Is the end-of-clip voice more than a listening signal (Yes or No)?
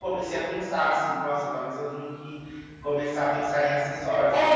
Yes